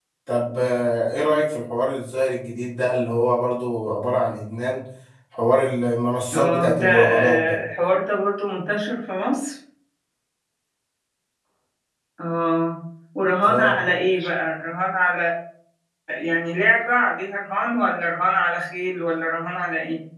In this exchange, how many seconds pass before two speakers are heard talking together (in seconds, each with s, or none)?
6.3 s